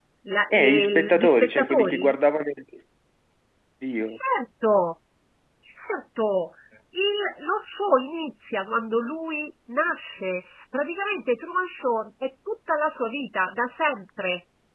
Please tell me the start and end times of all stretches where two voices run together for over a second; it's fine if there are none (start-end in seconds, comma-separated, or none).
0.5-2.1